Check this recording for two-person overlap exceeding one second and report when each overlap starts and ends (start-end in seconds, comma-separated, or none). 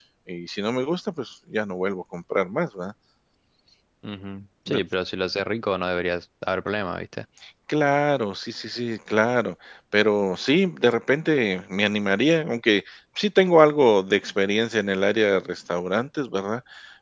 none